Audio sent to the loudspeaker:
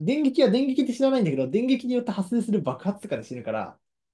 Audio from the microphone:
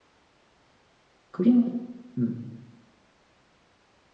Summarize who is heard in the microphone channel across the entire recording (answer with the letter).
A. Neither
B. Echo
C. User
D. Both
C